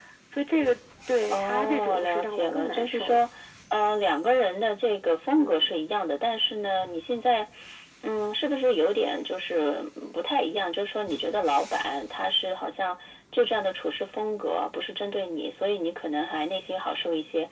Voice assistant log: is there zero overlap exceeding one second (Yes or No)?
No